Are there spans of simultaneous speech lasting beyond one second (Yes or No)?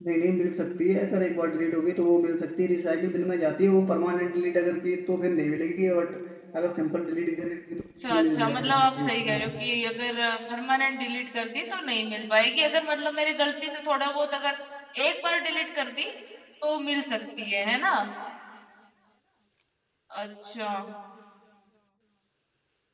Yes